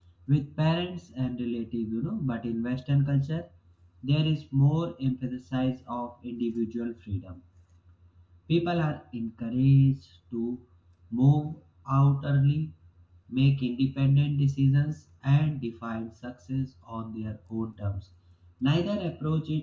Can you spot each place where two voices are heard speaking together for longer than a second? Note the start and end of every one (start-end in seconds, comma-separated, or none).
none